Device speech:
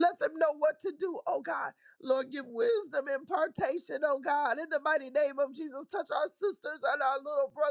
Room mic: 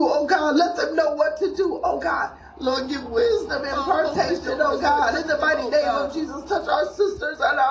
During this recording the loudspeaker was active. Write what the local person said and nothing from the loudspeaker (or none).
uh, open doors, Lord, touch them, oh God.